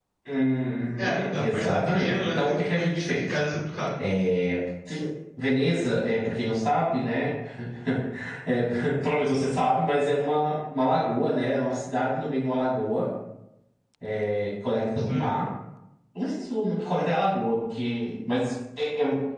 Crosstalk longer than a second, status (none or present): present